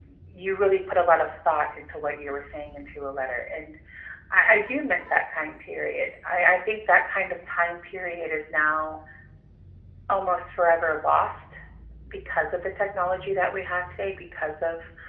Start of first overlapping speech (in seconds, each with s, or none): none